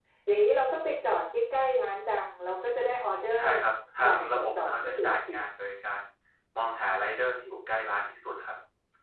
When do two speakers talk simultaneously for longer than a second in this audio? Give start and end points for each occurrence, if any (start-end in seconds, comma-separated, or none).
4.0-5.2